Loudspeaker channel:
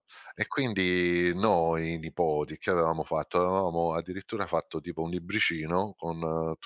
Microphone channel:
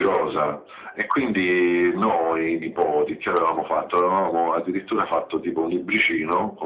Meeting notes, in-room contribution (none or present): none